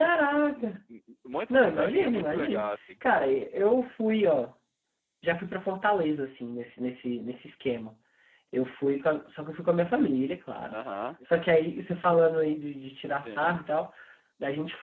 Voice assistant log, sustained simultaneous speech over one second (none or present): present